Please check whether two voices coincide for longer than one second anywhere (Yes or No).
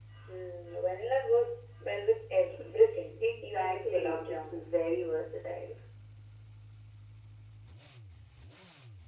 Yes